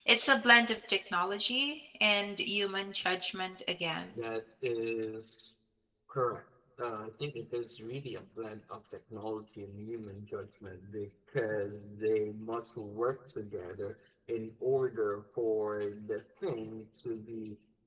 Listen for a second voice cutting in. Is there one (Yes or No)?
No